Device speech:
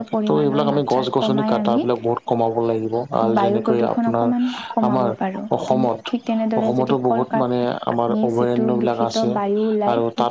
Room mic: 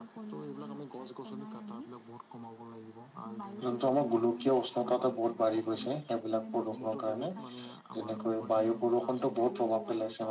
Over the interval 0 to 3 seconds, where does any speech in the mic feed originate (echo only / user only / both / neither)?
echo only